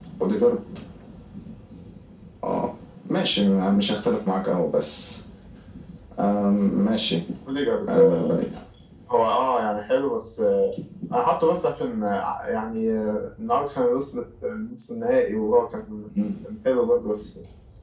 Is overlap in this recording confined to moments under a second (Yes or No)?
Yes